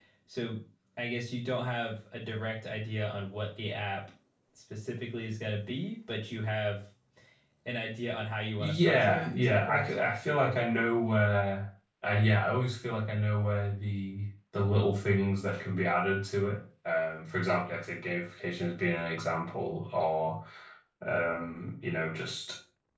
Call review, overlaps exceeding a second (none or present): present